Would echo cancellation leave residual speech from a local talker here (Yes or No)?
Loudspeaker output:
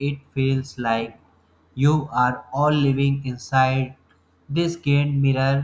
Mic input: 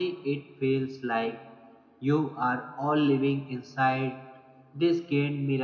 No